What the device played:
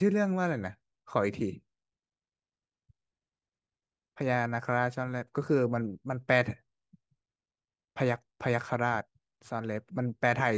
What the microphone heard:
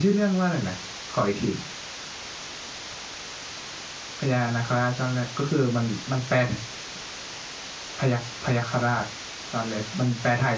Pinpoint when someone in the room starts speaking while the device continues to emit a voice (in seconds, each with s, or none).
none